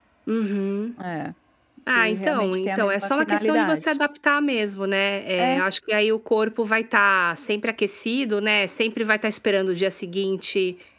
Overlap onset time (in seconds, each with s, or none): 1.9 s